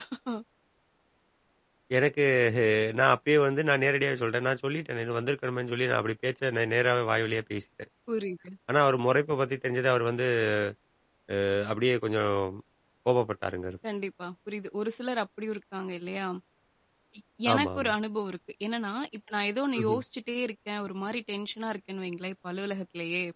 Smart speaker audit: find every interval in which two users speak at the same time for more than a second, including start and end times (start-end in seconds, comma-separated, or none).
none